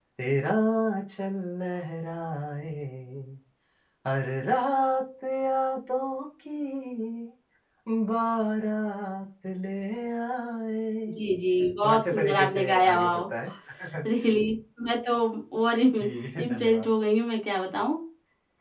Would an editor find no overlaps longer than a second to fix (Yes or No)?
No